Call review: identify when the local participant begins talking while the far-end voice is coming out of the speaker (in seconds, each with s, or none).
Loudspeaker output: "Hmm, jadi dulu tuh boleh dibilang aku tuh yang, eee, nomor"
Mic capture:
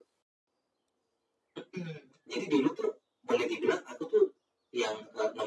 none